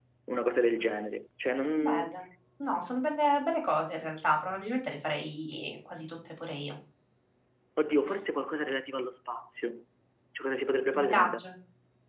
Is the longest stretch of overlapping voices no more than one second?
Yes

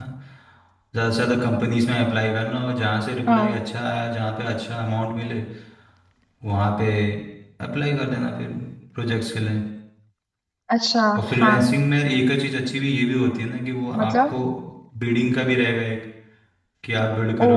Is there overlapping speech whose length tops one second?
No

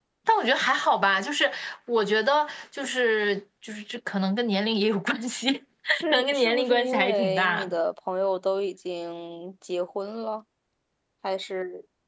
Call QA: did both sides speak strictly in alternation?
No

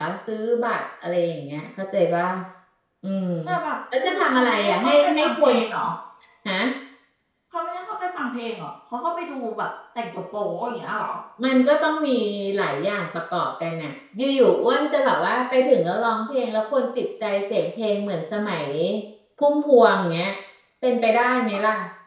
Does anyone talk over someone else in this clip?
Yes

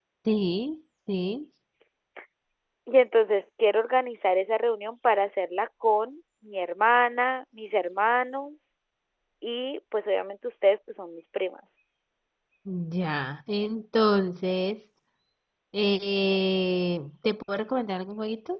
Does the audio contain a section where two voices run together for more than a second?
No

